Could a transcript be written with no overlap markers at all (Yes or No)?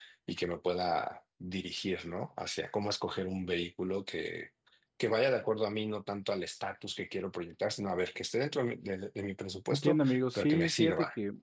No